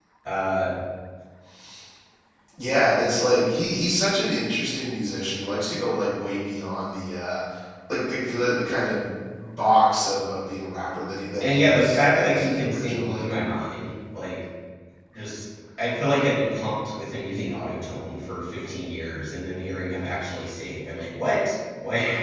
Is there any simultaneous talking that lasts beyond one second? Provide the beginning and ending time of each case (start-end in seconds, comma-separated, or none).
11.4-13.2